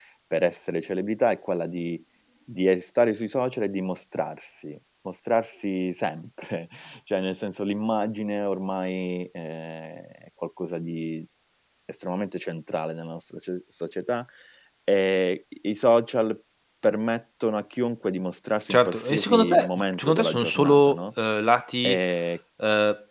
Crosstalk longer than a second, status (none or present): present